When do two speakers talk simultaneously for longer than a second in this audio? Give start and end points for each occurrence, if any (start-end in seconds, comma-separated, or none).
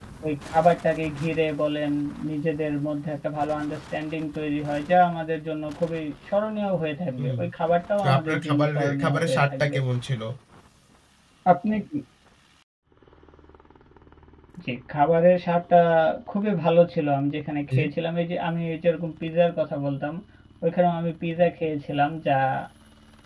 8.0-9.8